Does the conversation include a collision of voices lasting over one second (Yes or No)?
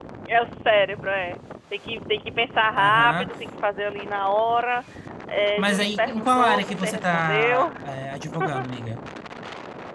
Yes